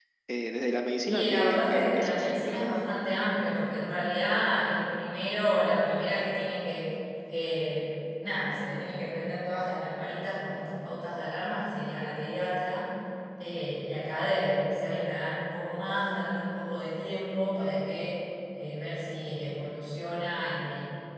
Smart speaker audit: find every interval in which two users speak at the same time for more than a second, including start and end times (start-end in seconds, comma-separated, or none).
1.1-2.7